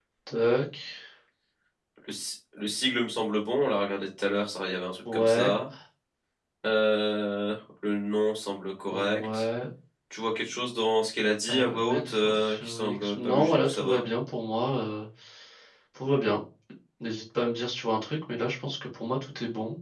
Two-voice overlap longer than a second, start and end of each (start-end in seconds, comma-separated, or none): 11.5-14.0